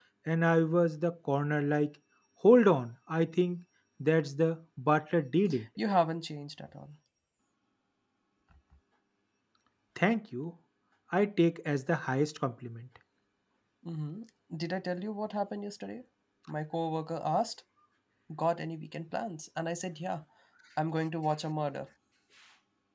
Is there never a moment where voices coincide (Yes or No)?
Yes